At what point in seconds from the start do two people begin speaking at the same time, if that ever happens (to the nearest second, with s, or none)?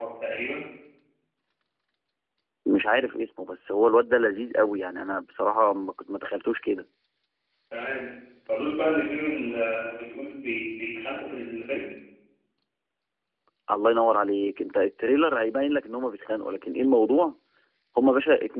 none